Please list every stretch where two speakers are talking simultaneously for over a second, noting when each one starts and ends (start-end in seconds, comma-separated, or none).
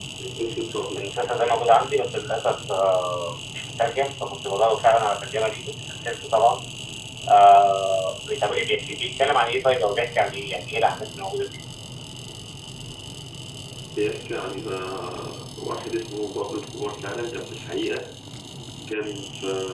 none